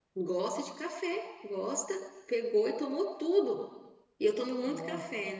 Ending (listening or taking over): listening